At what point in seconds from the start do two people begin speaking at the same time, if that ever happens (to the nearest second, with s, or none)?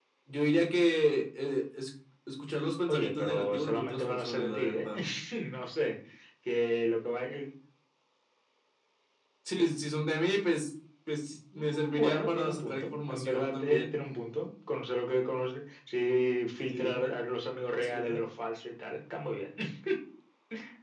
3 s